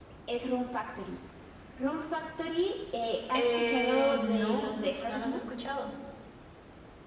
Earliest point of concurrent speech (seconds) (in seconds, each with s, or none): 3.3 s